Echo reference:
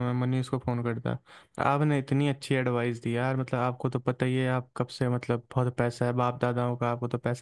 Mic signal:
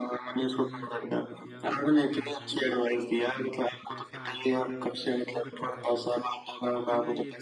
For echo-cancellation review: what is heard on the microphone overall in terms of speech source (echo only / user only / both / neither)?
both